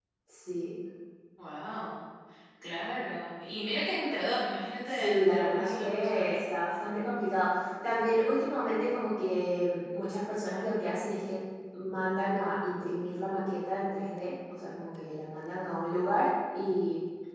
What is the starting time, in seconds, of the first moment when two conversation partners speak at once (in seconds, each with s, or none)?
4.9 s